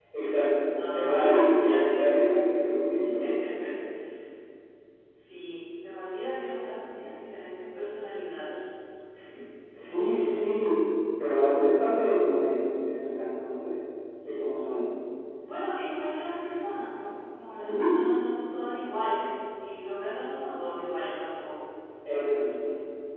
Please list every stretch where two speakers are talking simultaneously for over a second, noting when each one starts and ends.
0.9-2.2

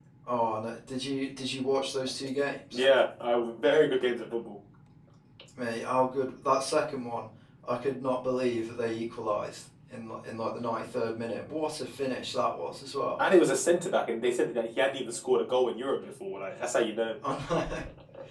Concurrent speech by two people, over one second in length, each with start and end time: none

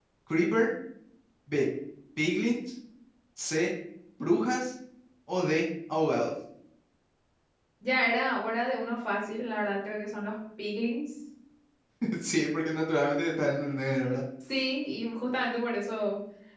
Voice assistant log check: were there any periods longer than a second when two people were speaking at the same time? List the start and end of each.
none

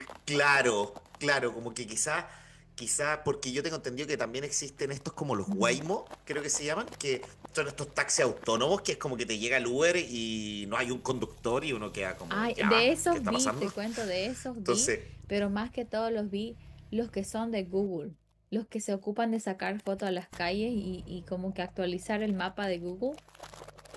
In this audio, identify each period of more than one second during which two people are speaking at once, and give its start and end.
12.3-13.7

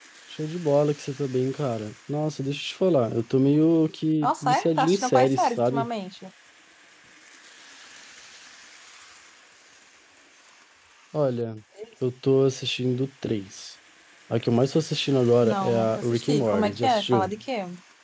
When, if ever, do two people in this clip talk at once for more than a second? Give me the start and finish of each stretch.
4.2-5.9, 15.4-17.3

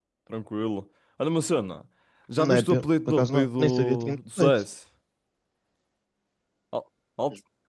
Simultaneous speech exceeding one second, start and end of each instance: 2.4-4.5

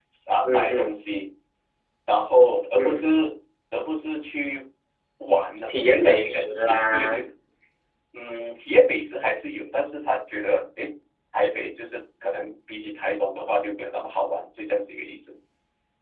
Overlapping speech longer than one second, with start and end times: 5.7-7.3

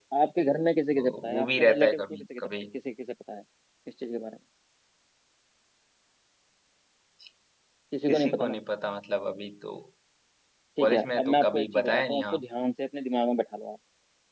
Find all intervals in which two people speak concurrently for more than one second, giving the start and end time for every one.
0.9-2.5, 10.8-12.4

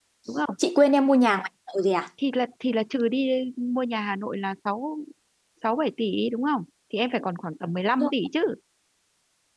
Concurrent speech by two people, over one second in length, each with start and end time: none

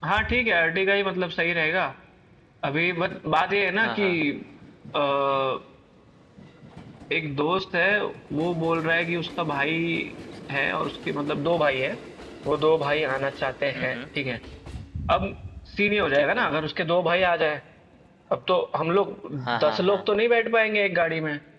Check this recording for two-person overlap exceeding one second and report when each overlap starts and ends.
none

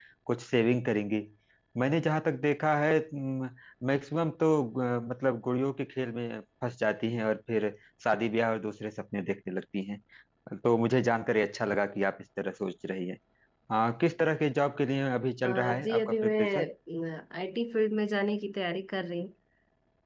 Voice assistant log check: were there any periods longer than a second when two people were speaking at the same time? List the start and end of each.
15.4-16.6

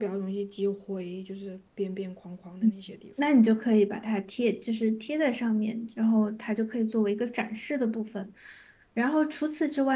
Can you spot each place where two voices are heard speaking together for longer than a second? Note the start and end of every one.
none

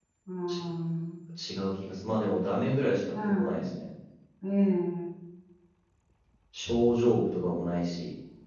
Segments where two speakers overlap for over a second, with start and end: none

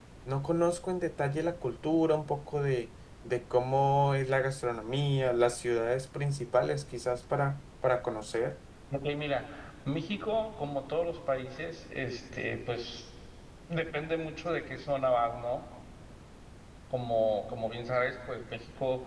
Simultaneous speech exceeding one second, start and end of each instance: none

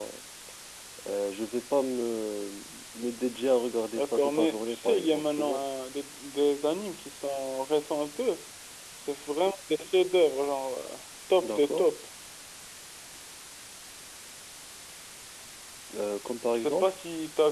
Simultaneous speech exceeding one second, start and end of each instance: 4.0-5.6

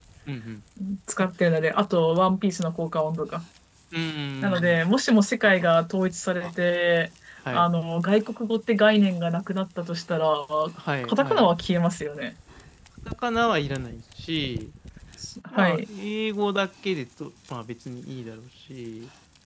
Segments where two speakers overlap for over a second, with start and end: none

